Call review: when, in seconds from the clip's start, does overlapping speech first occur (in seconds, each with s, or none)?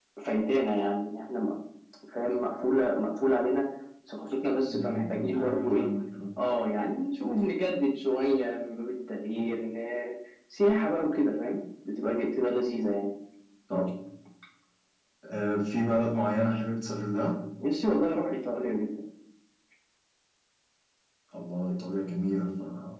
4.7 s